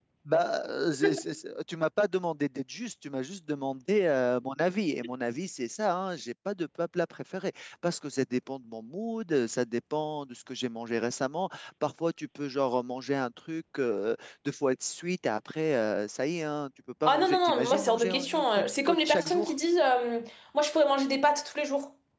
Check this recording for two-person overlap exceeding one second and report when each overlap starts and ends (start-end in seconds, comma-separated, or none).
17.0-19.5